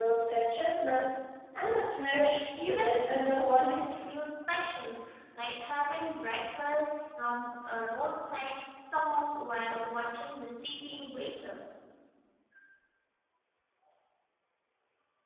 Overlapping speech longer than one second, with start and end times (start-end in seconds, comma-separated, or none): 2.6-3.9